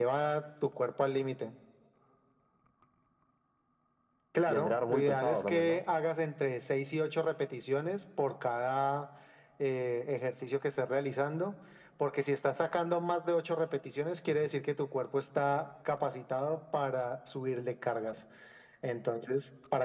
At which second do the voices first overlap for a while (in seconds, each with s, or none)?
4.5 s